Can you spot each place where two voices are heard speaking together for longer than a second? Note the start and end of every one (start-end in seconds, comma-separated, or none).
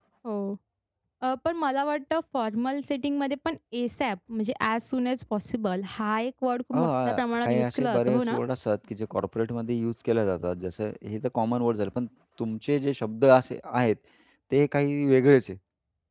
6.7-8.4